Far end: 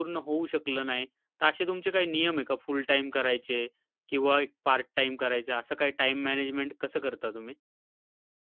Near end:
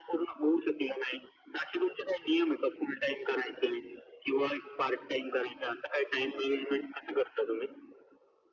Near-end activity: none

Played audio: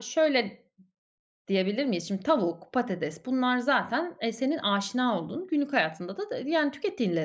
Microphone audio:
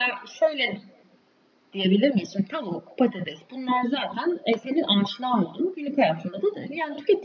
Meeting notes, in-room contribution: none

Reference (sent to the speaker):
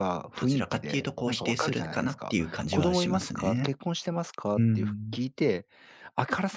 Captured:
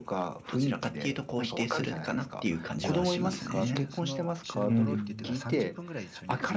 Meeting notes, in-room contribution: present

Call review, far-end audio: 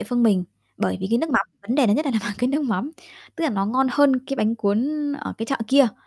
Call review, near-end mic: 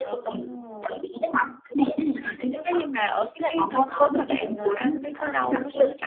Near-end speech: present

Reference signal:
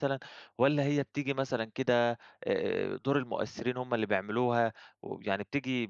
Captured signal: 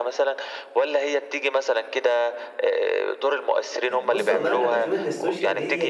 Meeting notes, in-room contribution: present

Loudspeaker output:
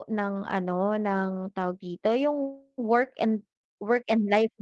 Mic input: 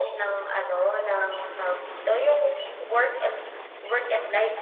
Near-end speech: none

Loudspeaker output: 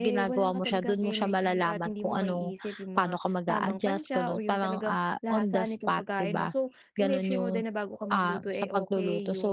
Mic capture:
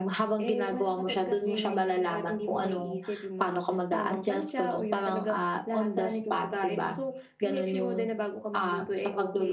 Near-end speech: none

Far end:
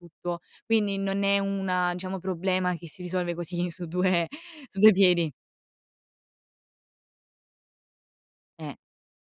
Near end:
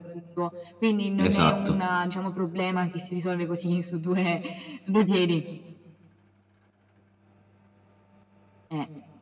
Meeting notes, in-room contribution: present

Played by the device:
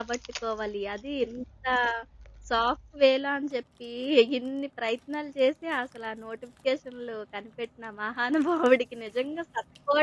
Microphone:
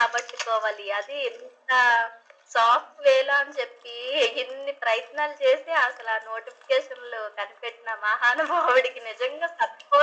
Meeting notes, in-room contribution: none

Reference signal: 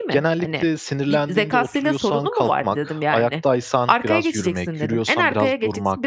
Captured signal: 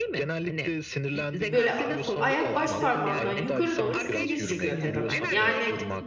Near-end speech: present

